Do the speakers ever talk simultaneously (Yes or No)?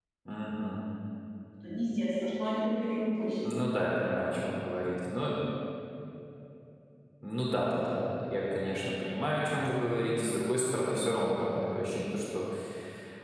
No